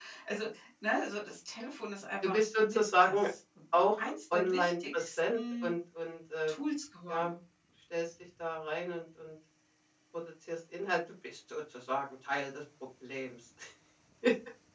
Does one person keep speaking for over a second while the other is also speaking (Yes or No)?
Yes